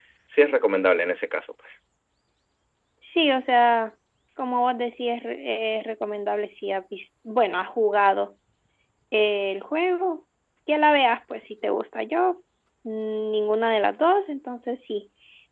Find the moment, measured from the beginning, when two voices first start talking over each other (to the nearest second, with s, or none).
none